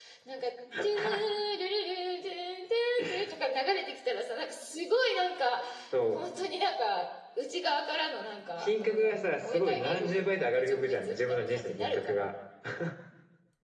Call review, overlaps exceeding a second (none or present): present